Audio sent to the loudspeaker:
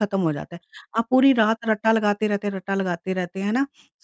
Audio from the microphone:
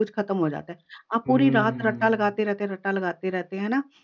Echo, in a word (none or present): present